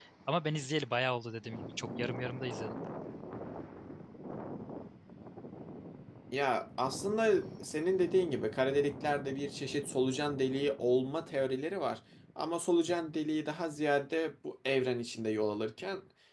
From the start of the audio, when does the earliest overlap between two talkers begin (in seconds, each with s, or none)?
none